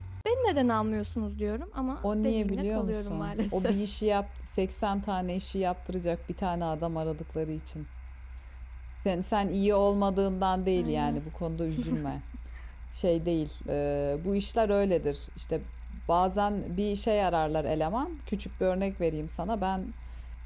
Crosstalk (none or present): present